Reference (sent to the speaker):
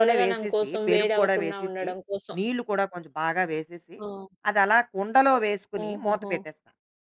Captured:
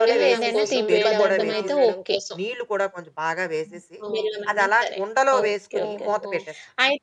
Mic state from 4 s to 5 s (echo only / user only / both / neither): both